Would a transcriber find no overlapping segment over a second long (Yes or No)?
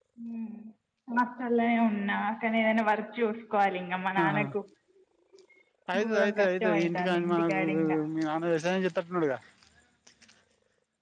No